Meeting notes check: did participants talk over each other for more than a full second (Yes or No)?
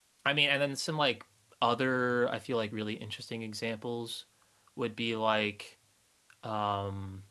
No